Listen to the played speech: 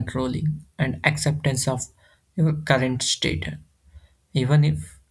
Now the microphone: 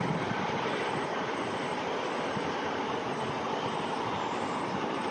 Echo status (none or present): none